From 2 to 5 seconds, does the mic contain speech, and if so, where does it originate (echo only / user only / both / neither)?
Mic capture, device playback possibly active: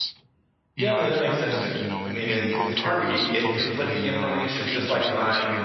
both